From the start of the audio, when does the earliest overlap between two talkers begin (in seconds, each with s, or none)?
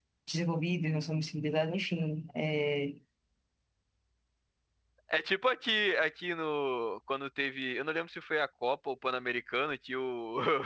none